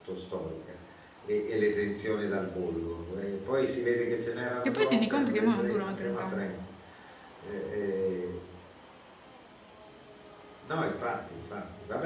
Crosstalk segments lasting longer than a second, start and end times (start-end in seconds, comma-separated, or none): 4.6-6.5